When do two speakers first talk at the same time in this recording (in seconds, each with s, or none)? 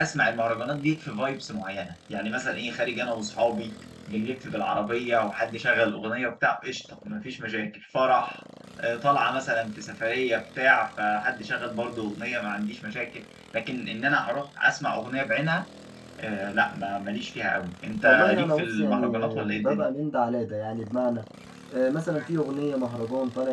18.0 s